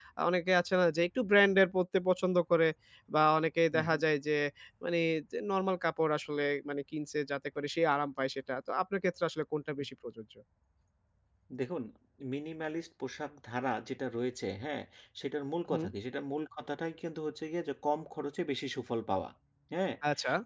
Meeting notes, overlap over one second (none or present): none